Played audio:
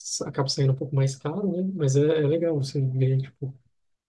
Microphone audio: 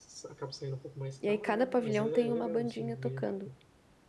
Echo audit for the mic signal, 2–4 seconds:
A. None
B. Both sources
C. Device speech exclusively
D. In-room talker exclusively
B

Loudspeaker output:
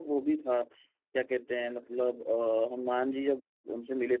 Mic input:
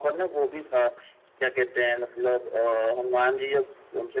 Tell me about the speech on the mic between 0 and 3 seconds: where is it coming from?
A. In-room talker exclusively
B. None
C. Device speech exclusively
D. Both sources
C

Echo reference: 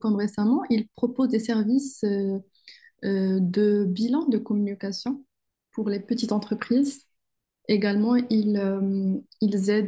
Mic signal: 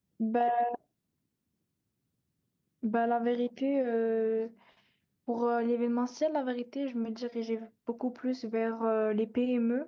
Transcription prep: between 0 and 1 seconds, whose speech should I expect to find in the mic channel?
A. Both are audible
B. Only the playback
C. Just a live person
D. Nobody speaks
C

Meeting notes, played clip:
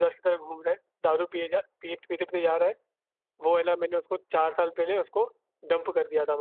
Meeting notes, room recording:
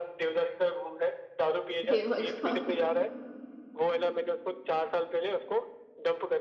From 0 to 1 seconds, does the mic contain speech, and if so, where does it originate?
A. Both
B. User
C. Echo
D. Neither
C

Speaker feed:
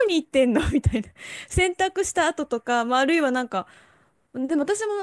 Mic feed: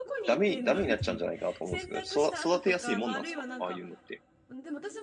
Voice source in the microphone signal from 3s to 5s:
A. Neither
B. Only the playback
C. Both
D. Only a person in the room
C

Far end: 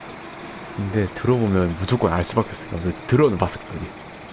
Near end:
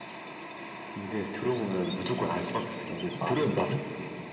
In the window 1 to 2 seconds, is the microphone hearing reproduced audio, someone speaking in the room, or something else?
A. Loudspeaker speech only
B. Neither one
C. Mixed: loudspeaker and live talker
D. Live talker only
A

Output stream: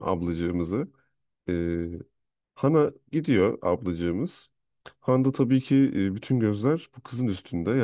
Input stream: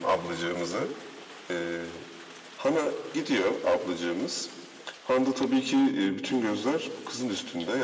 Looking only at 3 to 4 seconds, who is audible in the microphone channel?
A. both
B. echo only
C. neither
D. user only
B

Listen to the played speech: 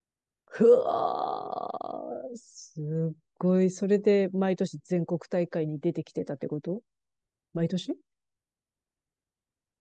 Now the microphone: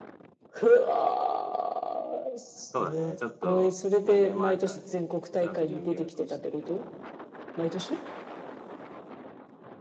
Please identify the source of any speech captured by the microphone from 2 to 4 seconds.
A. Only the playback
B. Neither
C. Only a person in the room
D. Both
D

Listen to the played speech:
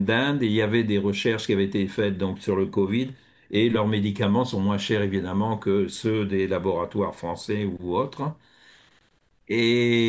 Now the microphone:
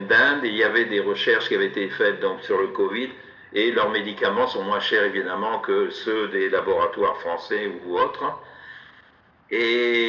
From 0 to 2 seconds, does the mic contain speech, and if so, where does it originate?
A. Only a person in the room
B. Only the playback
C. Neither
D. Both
B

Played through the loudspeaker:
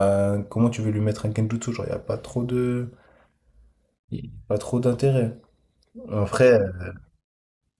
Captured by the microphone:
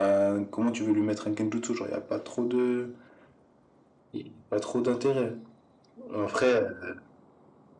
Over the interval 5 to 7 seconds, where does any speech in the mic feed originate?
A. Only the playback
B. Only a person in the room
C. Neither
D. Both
A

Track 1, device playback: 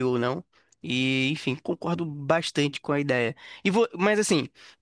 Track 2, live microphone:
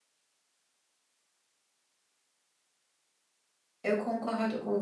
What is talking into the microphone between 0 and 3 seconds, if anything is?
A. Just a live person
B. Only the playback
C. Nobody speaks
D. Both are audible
C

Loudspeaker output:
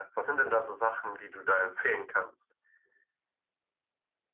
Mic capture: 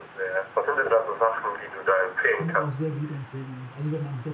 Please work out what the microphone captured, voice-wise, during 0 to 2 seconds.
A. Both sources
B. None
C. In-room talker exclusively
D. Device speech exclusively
D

